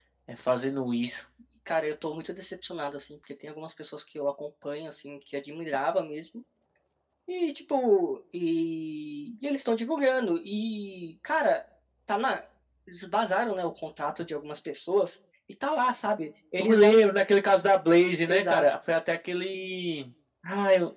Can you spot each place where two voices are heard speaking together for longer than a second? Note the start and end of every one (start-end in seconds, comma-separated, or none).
none